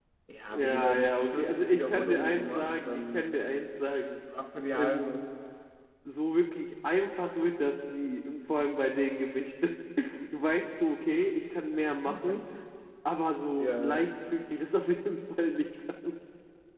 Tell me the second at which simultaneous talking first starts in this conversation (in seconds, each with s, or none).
0.5 s